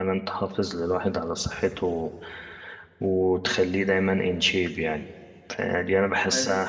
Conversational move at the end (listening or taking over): listening